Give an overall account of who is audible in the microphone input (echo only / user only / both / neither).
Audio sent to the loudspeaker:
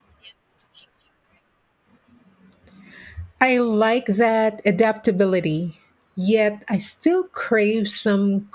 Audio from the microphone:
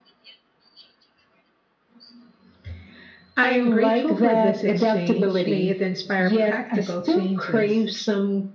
both